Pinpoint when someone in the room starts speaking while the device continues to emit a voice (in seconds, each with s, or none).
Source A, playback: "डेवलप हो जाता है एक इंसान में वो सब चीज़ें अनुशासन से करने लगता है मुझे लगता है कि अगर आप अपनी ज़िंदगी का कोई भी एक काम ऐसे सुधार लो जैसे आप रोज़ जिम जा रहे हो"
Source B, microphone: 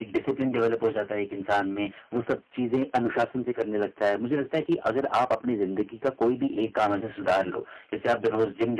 none